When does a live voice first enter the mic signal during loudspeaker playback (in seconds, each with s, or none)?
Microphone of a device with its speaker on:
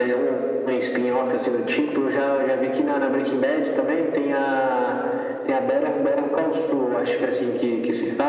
none